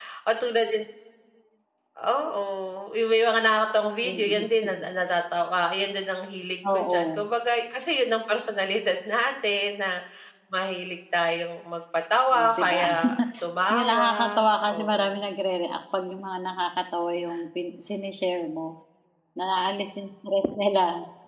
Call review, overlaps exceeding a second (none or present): present